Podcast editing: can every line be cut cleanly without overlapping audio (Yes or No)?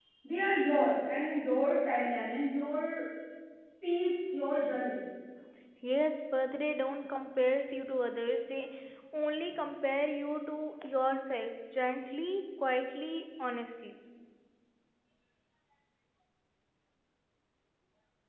Yes